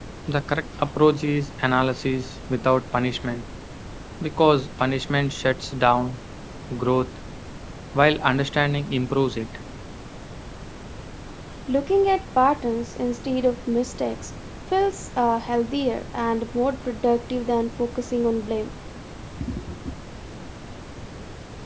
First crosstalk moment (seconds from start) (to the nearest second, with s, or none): none